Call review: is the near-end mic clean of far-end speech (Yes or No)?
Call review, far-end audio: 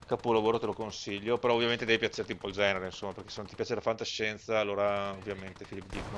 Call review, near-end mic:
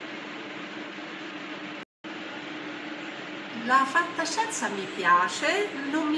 Yes